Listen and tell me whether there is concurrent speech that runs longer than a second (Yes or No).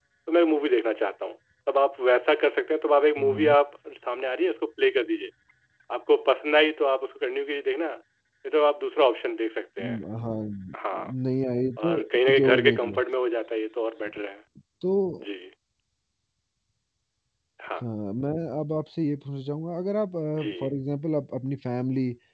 Yes